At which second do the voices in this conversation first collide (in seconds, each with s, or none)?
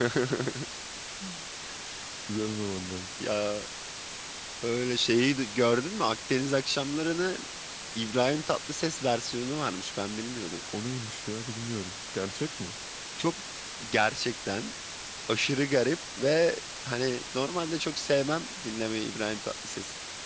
none